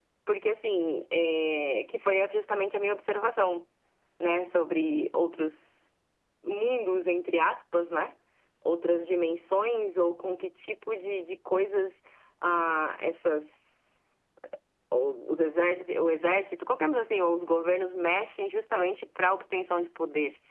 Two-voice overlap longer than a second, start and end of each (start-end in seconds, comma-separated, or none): none